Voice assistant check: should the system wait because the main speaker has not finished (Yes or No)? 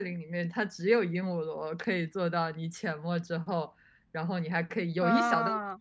Yes